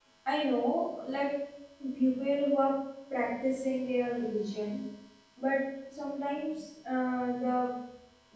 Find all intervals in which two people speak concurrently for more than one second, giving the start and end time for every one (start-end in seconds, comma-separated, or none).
none